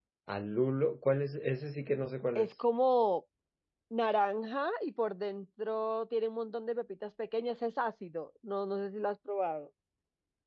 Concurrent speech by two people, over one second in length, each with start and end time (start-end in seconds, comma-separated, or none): none